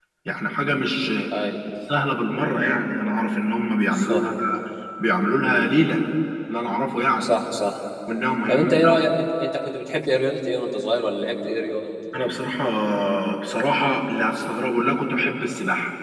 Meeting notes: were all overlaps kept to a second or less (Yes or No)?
Yes